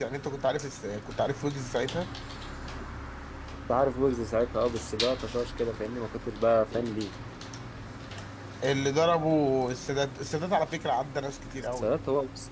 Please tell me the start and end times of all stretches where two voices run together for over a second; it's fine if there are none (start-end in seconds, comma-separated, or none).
none